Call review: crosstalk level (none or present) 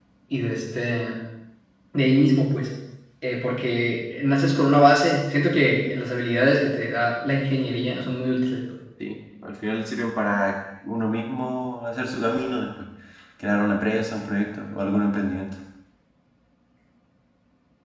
none